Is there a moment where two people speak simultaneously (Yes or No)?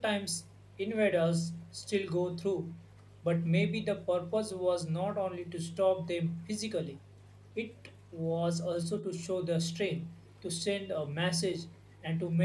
No